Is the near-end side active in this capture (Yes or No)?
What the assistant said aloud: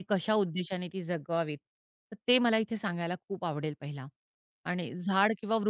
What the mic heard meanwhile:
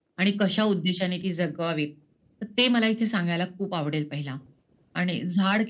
No